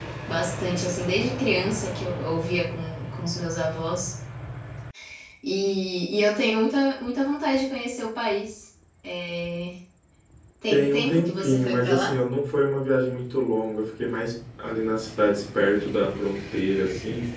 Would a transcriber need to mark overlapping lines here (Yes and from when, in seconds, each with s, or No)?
Yes, from 10.7 s